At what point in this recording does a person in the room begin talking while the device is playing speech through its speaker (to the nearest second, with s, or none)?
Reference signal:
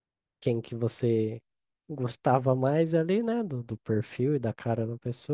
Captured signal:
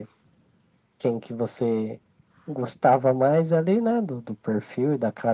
none